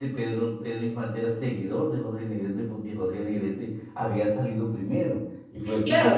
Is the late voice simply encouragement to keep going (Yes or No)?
No